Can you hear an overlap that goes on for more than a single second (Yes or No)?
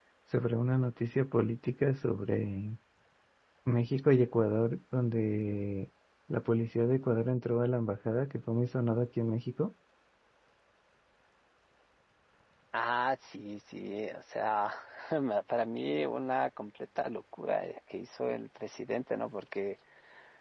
No